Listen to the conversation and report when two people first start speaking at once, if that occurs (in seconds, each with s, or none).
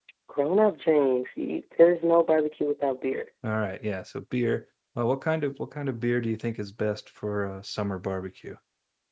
none